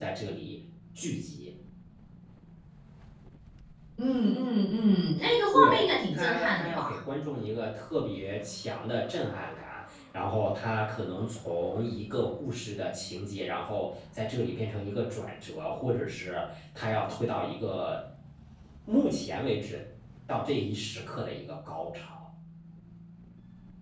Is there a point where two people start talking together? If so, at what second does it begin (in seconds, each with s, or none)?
5.5 s